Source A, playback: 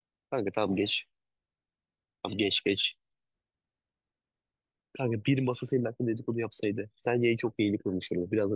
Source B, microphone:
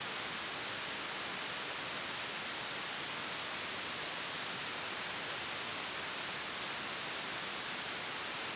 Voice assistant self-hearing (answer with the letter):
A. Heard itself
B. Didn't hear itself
B